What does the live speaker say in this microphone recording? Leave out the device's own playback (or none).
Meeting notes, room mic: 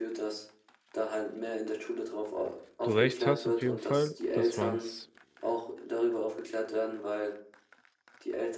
du recht hast, auf jeden Fall, dass man es